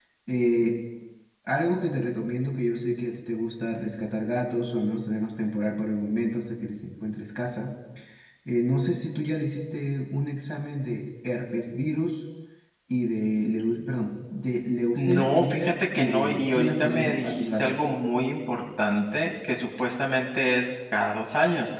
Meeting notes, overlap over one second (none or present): present